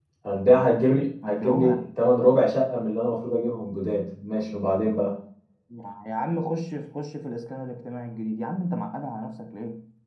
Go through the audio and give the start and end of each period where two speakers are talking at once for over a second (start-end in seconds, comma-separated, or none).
none